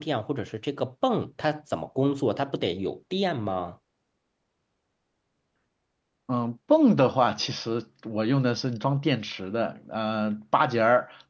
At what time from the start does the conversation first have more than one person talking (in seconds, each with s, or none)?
none